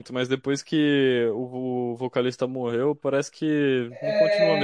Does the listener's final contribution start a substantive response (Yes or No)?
Yes